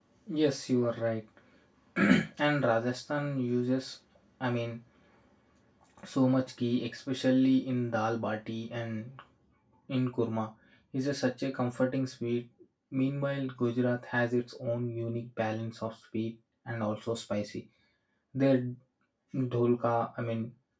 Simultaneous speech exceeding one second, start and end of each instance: none

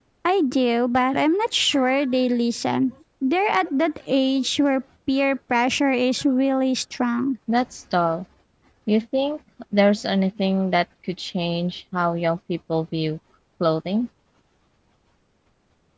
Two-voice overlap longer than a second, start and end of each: none

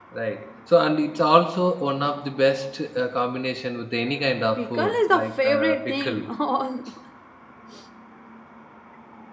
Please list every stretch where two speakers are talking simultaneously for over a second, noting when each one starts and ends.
4.6-6.2

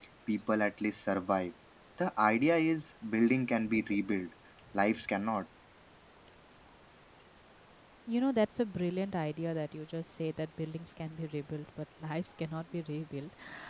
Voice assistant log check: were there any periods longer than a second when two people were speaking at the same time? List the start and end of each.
none

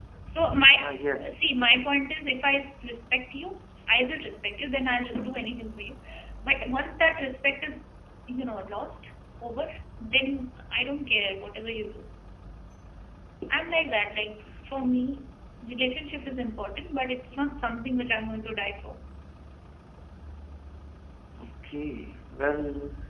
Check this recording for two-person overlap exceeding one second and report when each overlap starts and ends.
none

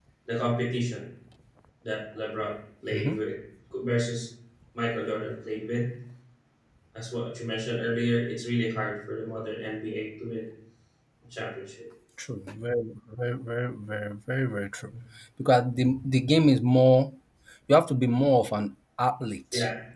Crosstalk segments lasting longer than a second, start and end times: none

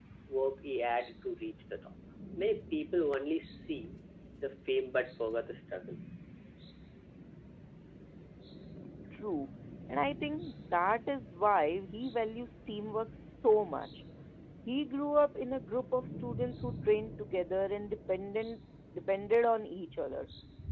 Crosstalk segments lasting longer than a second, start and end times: none

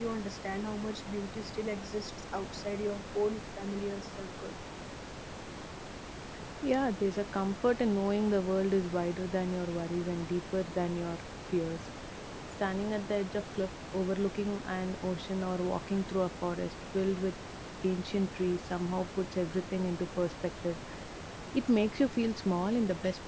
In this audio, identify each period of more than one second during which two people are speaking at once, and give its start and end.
none

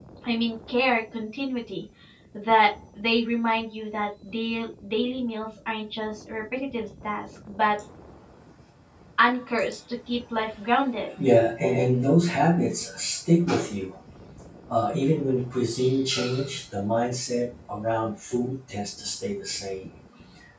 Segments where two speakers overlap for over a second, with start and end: none

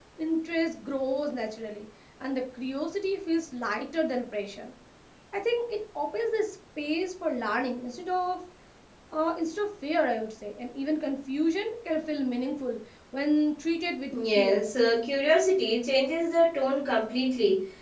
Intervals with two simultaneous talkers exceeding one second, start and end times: none

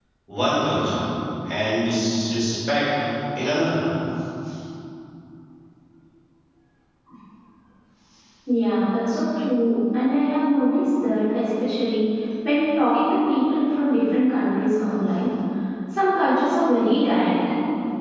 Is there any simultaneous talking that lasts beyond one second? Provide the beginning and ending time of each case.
none

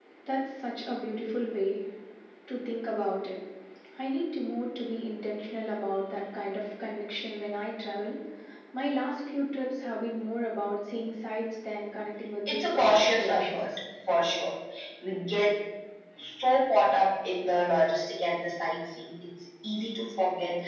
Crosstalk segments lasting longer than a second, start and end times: 12.5-13.8

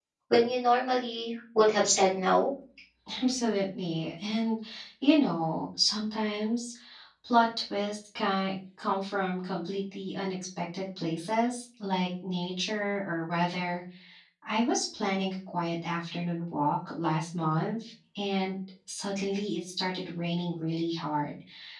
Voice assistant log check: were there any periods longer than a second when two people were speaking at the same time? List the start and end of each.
none

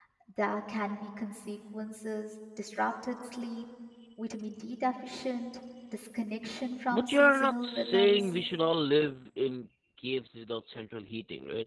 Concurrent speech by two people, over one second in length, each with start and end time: 6.9-8.3

